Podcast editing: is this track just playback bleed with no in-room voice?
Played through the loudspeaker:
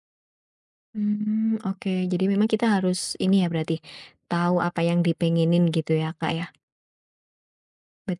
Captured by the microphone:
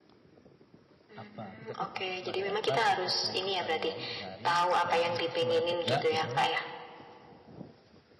No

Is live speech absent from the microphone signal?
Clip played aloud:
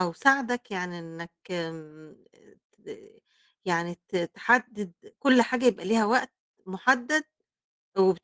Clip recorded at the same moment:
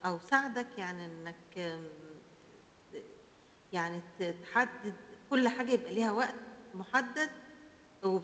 Yes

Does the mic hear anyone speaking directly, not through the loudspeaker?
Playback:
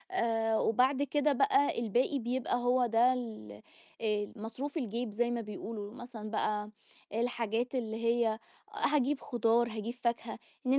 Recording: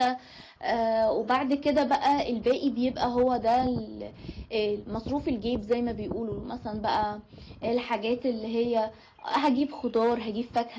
No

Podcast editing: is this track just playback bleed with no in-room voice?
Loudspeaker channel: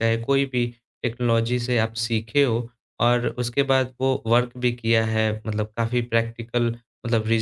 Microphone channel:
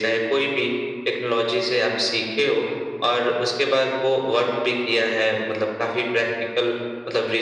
Yes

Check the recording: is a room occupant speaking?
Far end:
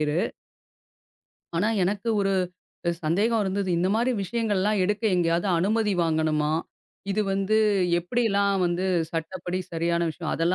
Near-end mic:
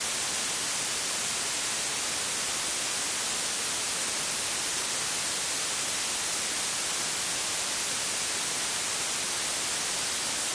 No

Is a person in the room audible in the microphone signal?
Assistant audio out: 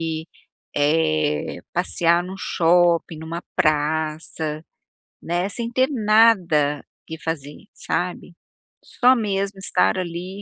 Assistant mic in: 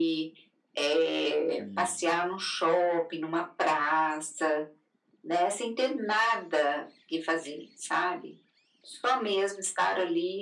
Yes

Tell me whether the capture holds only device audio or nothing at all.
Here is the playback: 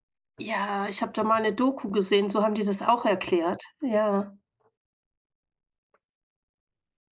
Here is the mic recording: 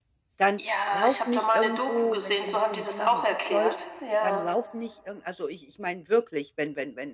No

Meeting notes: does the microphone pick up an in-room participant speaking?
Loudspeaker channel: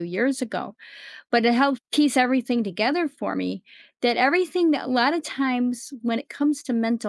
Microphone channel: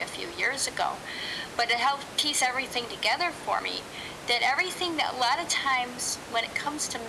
No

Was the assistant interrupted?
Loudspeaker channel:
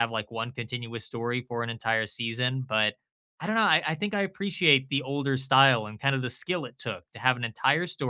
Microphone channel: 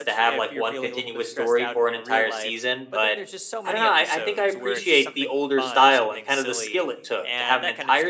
Yes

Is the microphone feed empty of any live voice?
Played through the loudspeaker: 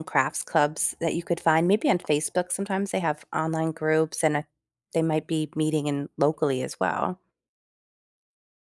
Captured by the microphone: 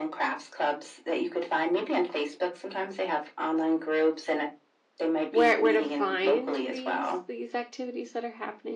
No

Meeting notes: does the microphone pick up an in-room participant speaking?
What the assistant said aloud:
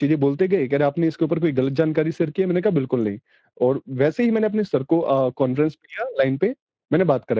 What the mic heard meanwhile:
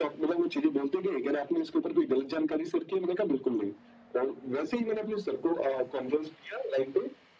No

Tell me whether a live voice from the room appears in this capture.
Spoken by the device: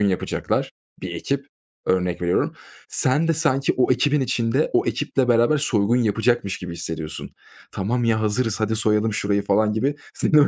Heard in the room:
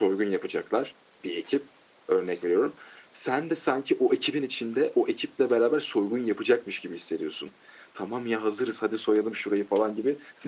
No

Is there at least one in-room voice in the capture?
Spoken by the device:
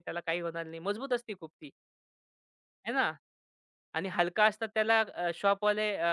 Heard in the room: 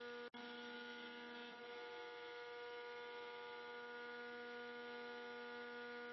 No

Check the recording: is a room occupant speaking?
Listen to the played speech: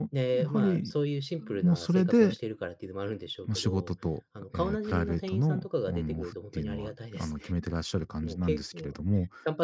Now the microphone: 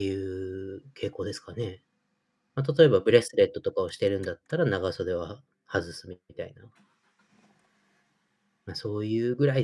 Yes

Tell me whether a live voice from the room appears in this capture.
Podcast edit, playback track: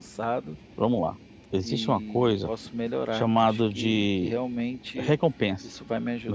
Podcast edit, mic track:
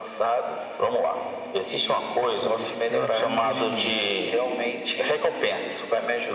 Yes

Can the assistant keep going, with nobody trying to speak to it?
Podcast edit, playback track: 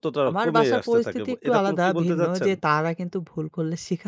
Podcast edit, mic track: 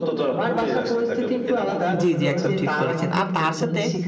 No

